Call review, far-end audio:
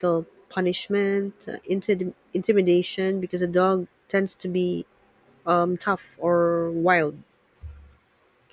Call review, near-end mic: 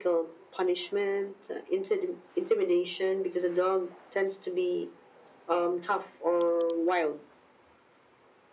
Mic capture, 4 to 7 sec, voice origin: echo only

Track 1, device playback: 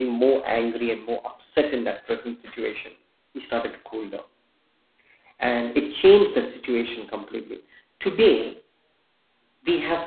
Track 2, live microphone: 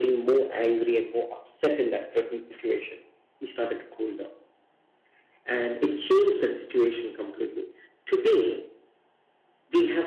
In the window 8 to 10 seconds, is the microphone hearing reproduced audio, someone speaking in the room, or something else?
echo only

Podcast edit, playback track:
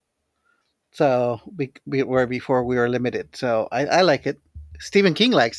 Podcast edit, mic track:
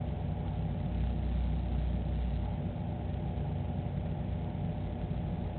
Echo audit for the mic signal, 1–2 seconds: neither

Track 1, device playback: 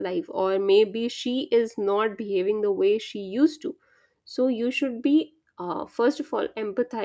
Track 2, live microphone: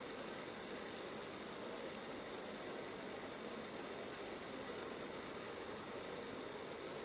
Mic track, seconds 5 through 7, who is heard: neither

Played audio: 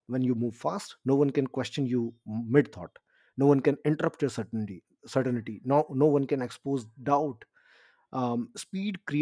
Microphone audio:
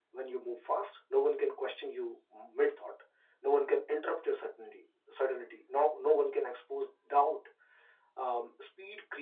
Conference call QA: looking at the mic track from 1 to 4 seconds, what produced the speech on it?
echo only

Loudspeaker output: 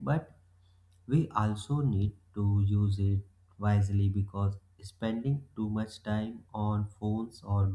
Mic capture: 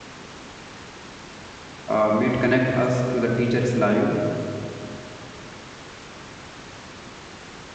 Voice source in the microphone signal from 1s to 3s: user only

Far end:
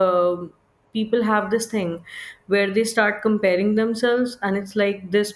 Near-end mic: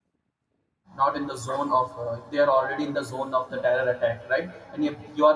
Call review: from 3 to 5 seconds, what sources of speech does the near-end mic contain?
user only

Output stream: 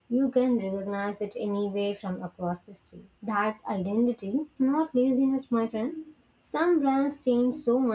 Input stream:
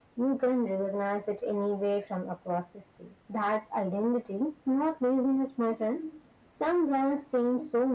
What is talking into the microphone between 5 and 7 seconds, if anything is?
echo only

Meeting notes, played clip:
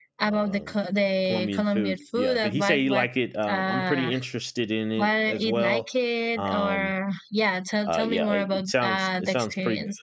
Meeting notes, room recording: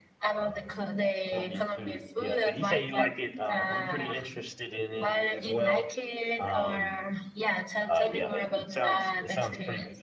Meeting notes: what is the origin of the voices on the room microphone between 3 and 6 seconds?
echo only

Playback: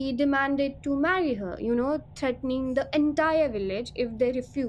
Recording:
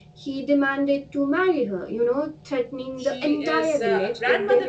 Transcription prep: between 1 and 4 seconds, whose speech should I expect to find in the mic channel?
both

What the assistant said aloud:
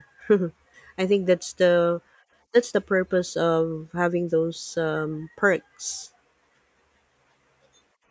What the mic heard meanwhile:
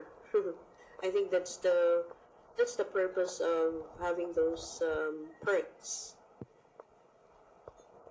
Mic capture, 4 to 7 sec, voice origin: echo only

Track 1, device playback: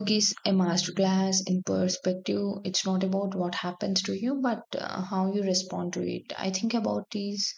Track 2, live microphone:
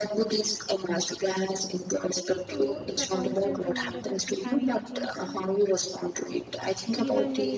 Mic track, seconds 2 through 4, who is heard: both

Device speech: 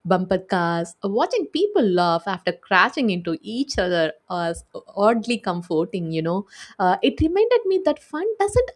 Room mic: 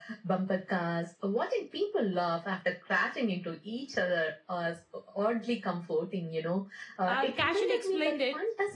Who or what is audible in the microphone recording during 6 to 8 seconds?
both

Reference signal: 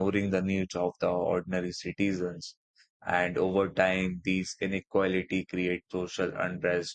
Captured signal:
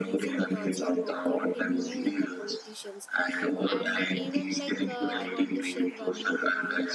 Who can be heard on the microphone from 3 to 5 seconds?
both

